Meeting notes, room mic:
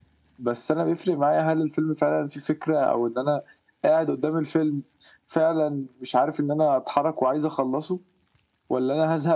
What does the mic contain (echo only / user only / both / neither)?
echo only